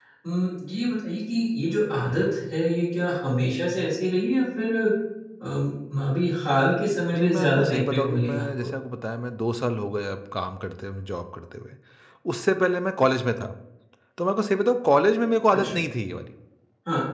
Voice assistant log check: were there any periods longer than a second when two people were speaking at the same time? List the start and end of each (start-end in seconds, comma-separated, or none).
7.1-8.7